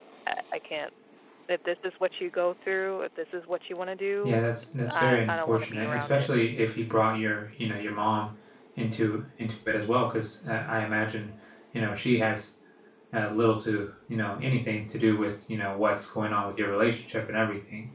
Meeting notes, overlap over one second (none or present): present